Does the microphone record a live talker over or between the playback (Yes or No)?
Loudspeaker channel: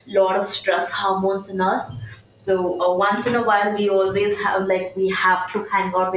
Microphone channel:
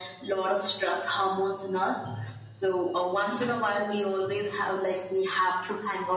No